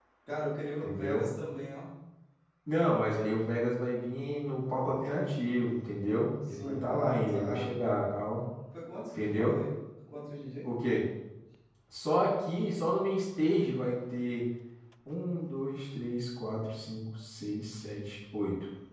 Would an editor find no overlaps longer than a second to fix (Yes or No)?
No